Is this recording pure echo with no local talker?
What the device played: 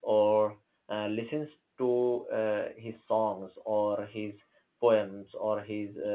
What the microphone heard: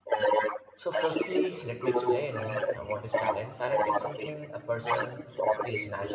No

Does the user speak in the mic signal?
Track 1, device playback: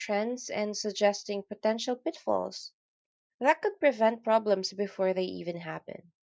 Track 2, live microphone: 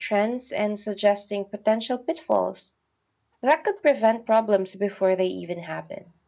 No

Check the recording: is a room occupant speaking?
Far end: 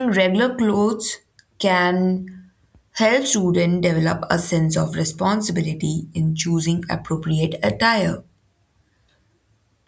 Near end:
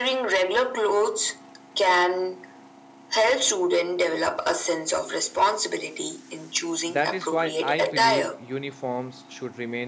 Yes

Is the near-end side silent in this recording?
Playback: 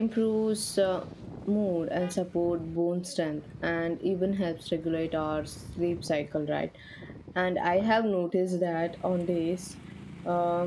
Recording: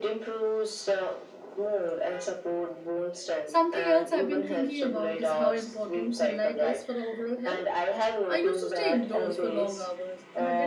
No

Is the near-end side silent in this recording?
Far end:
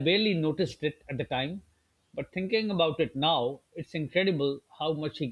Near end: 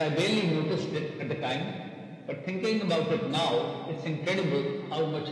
Yes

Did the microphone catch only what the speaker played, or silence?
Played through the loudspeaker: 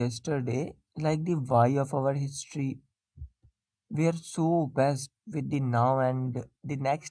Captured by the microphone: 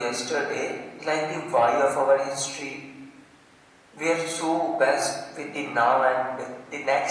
Yes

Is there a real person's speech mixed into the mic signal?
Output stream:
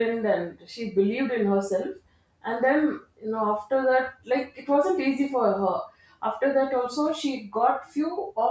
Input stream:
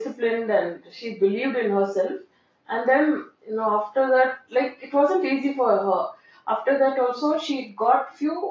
No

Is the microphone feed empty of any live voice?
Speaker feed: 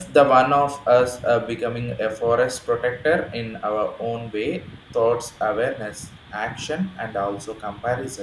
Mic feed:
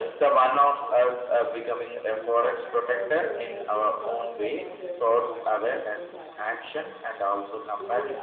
No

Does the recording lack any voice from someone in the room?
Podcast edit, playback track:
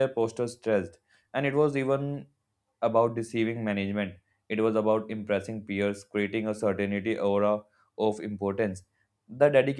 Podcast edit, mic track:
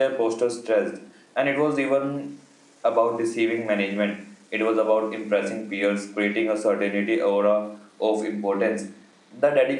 Yes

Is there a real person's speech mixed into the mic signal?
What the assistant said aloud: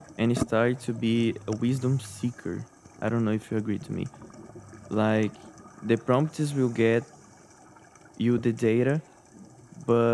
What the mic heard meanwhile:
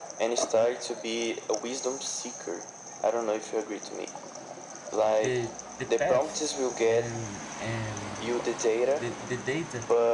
Yes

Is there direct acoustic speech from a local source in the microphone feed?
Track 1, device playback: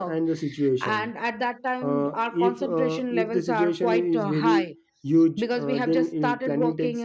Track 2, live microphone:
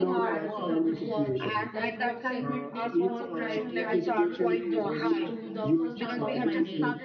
Yes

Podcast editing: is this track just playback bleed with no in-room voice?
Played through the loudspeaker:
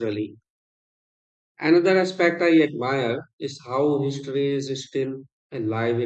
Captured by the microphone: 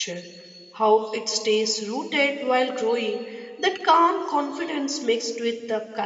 No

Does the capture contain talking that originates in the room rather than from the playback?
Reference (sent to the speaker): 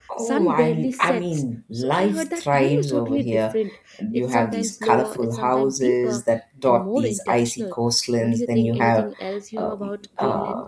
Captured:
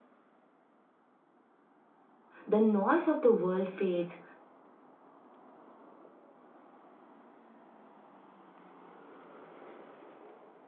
Yes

